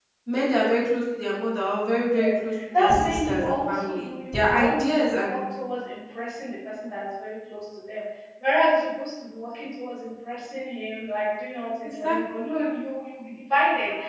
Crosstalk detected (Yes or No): Yes